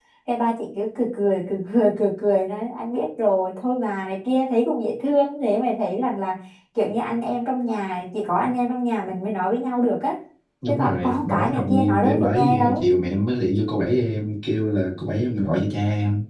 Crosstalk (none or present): present